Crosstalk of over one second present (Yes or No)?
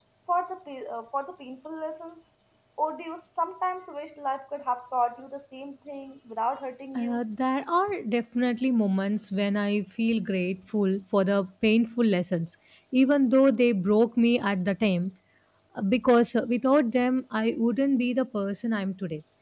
No